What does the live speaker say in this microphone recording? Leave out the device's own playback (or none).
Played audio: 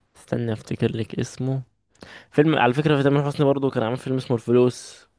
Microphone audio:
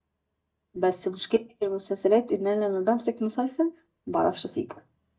بس مشكلتي في المسلسلات إن أنا لما بمسك مسلسل ما بعرفش أسيبه